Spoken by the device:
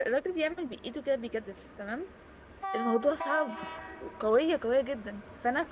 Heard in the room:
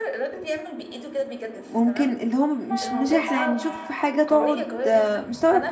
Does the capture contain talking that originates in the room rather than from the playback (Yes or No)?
Yes